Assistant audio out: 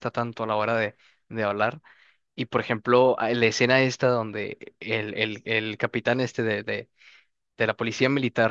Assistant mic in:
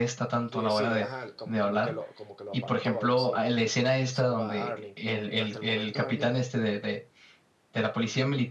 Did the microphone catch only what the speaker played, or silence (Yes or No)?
No